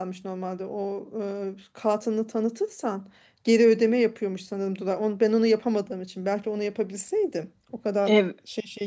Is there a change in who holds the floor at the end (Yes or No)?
No